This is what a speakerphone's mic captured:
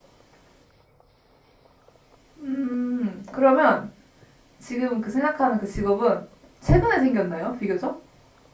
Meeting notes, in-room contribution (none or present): present